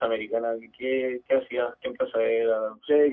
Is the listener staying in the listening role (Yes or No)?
No